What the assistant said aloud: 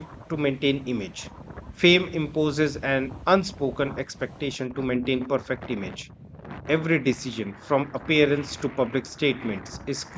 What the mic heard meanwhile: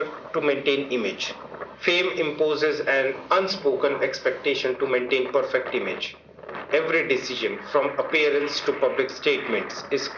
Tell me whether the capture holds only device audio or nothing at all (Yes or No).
Yes